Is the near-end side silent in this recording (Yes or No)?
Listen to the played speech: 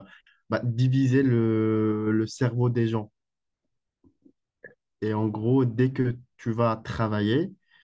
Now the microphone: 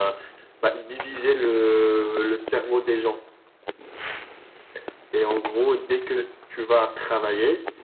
Yes